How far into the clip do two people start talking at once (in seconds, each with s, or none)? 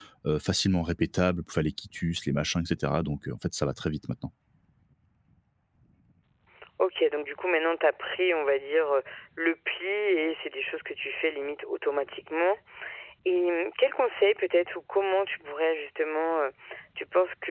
none